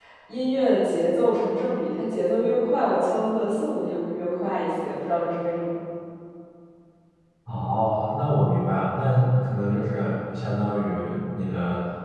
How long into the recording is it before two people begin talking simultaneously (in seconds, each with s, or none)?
none